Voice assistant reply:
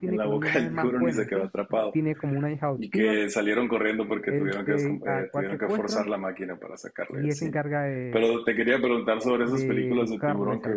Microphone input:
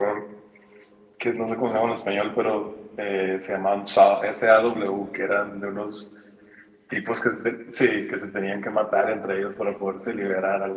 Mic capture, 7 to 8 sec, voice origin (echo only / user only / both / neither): user only